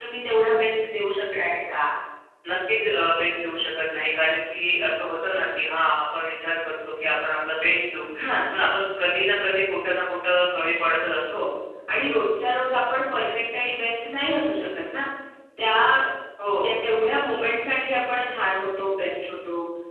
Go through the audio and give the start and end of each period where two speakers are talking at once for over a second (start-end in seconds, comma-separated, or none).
none